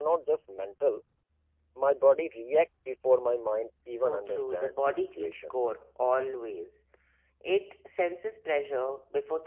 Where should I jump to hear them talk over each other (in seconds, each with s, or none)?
3.9 s